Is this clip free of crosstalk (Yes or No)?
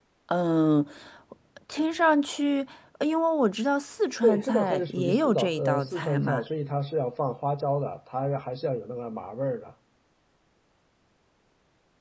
No